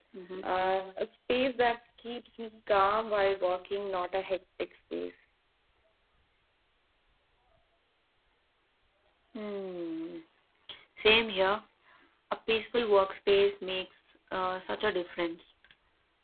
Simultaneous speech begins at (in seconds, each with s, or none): none